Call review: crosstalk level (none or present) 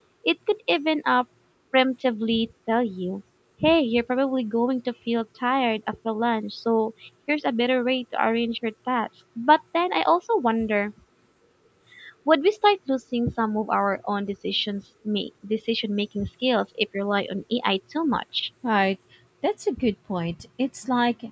none